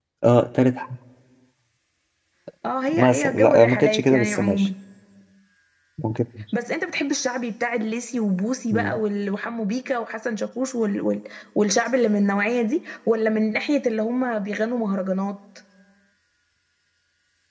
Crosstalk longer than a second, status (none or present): present